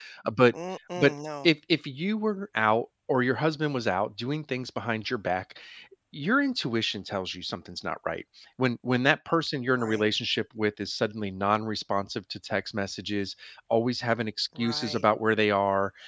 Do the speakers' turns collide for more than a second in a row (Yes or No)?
No